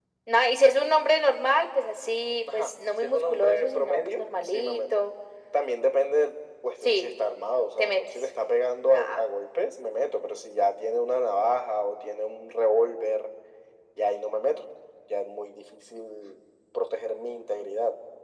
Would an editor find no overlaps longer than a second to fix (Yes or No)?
No